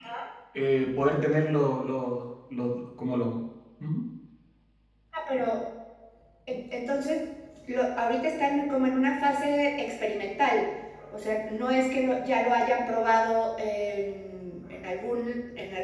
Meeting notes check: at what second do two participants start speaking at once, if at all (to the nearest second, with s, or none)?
none